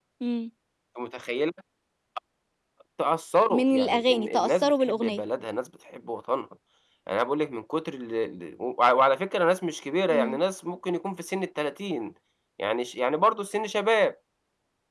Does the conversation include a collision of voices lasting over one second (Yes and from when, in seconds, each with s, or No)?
Yes, from 3.5 s